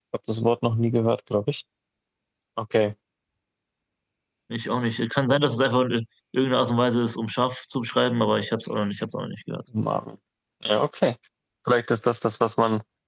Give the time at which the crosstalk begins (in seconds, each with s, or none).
none